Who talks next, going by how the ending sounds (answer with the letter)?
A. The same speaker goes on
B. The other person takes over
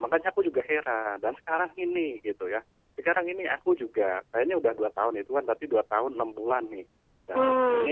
A